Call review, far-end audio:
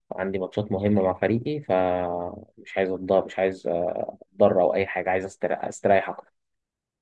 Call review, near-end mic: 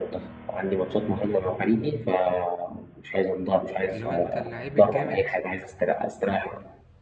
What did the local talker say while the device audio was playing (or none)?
اللي هو أنت اللعيب الجامد